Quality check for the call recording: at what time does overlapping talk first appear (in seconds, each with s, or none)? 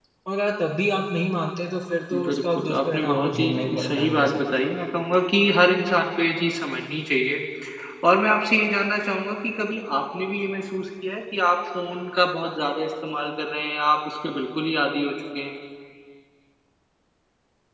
2.1 s